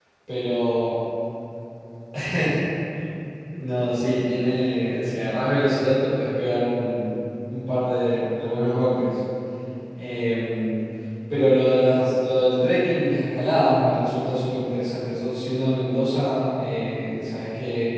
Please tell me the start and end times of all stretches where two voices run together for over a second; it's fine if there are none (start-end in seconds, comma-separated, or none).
none